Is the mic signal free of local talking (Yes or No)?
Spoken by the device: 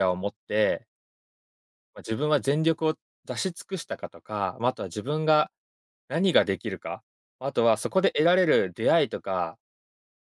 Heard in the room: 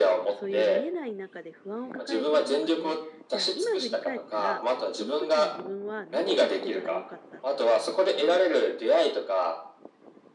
No